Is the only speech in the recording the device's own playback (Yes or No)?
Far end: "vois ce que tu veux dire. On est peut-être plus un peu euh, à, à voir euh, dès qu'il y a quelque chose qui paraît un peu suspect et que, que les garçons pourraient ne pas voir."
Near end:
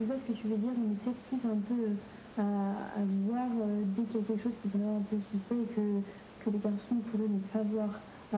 Yes